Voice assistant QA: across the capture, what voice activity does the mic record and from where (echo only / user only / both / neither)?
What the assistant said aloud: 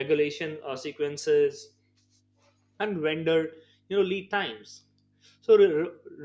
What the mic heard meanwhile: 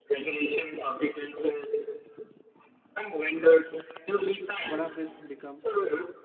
both